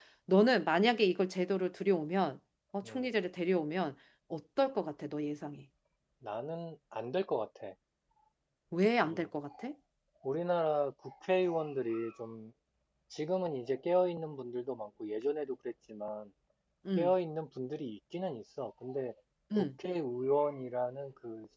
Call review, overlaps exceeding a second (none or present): none